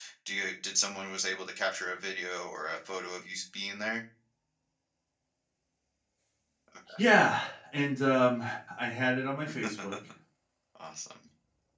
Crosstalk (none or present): none